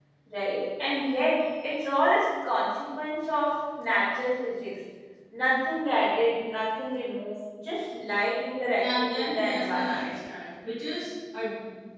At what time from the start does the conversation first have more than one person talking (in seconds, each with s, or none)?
8.8 s